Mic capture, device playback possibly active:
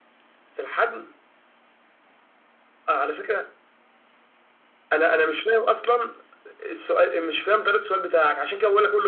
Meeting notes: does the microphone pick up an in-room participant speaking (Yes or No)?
No